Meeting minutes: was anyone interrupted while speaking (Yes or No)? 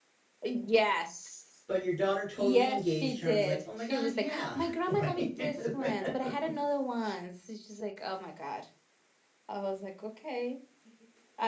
Yes